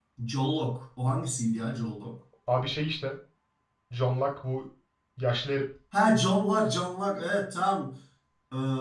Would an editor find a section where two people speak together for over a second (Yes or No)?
No